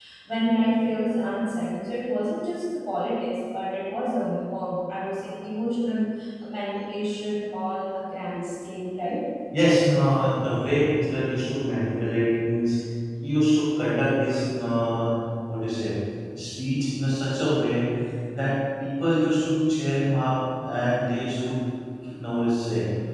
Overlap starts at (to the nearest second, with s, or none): none